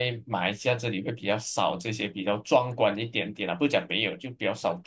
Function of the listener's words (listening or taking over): taking over